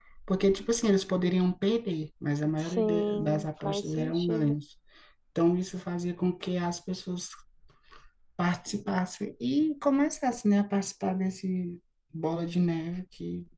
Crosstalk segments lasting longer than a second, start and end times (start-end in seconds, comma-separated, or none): 2.6-4.5